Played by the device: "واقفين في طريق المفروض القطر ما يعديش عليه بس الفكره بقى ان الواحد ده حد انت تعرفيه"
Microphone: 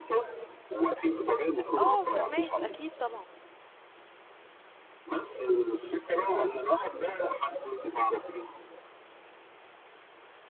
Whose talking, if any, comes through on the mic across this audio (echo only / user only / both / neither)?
both